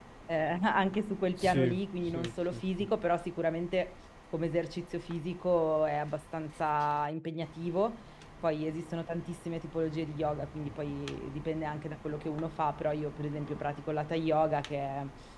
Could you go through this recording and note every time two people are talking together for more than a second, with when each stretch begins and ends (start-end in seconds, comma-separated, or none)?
1.4-2.9